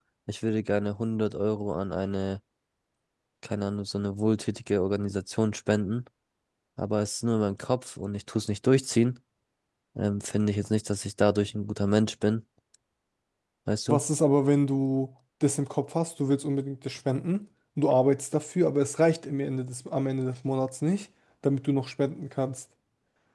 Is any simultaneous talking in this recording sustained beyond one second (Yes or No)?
No